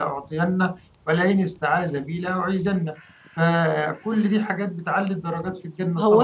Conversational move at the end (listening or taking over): taking over